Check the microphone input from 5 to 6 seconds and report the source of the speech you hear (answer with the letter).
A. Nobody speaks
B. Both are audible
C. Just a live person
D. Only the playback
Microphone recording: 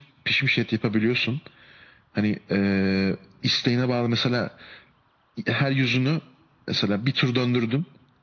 D